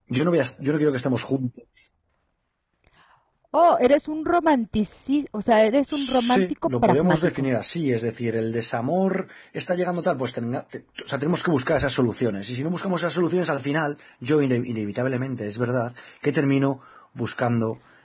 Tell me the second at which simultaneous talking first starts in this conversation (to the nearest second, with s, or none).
6 s